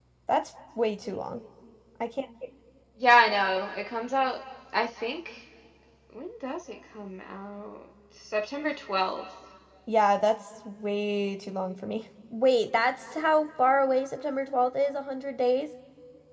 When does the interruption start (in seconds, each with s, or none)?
none